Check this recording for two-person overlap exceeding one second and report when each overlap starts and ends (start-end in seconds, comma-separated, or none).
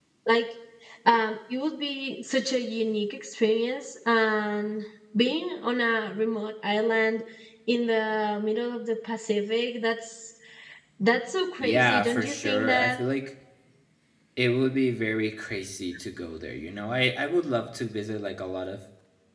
11.6-13.0